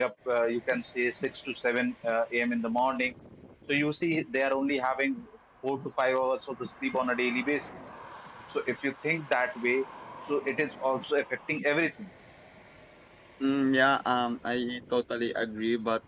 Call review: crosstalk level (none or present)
none